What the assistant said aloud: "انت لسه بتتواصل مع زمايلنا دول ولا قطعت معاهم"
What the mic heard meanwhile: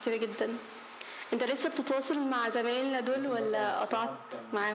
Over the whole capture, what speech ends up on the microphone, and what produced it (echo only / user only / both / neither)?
both